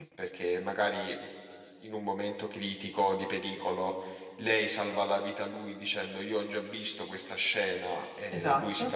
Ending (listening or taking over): listening